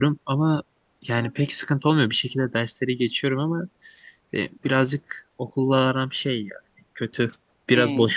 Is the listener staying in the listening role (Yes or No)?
Yes